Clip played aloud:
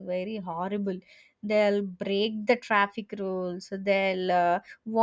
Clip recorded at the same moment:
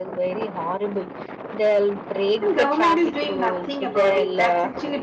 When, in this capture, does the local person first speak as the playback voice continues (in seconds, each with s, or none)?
2.4 s